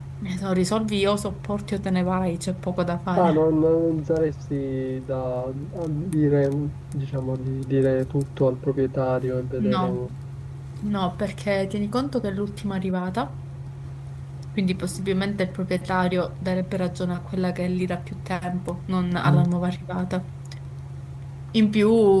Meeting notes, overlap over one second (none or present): none